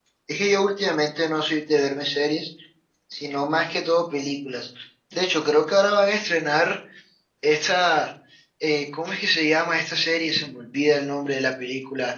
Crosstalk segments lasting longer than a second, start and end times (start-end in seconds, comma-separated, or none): none